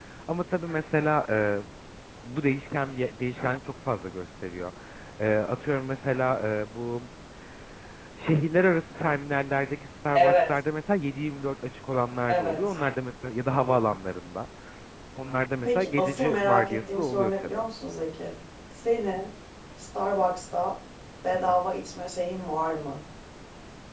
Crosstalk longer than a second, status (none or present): present